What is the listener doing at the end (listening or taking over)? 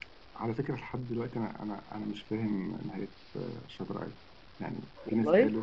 listening